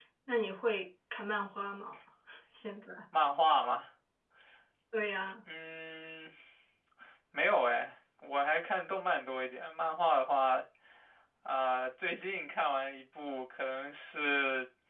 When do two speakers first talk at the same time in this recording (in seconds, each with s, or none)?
none